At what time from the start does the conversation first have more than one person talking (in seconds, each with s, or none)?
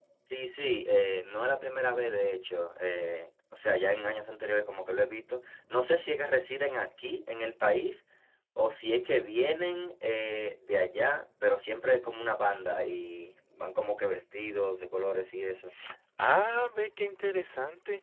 none